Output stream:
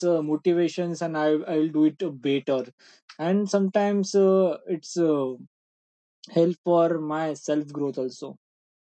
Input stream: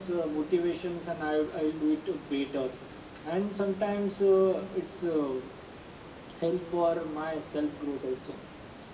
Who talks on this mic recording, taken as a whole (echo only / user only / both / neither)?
echo only